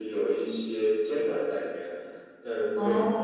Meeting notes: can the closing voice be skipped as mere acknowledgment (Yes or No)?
Yes